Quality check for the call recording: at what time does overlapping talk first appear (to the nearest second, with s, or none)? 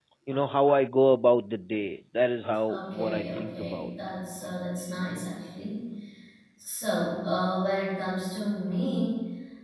3 s